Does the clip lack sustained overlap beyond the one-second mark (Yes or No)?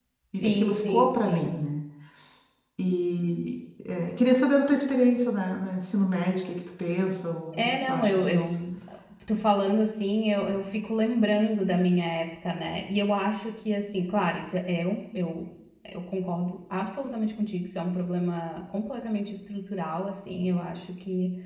No